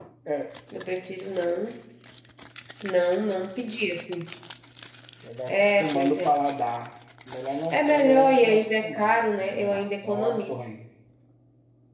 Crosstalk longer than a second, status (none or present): present